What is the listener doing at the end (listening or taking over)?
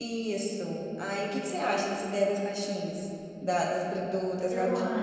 listening